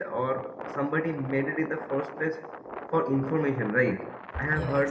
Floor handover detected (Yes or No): No